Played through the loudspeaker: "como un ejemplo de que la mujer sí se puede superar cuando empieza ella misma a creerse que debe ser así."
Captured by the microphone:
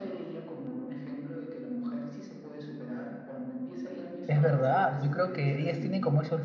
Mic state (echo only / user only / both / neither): both